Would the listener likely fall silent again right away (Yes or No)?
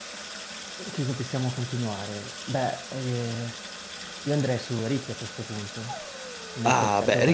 No